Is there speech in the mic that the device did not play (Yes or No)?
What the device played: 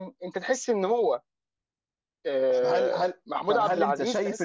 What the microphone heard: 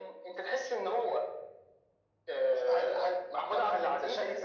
No